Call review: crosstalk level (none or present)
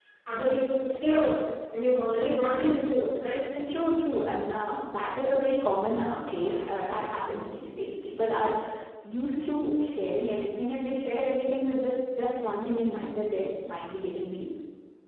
none